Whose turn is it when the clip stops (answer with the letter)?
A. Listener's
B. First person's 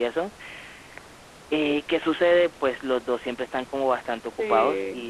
B